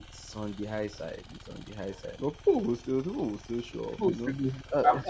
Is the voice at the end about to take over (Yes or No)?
Yes